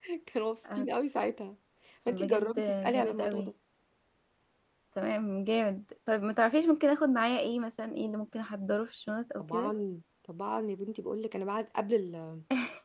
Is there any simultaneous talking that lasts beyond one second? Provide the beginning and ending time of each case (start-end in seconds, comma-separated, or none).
2.1-3.5